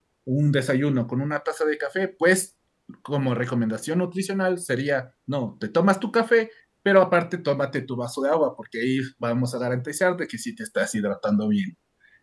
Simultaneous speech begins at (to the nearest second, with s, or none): none